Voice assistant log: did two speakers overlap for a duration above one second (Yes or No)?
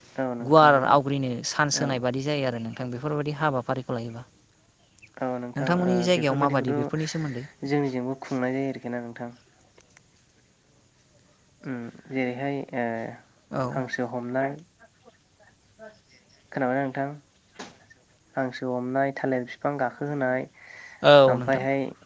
Yes